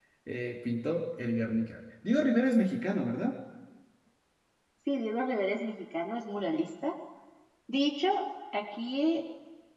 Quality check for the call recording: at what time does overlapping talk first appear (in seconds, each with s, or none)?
none